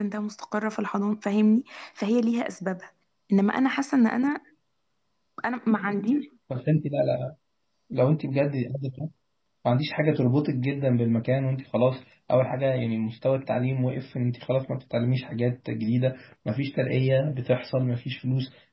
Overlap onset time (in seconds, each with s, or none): none